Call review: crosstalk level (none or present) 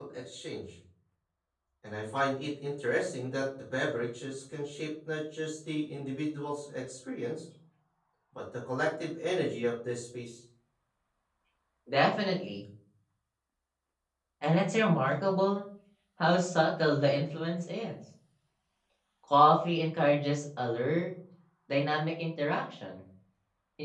none